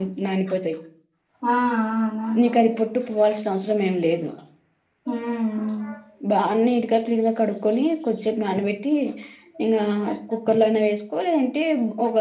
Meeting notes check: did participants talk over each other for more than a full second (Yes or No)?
No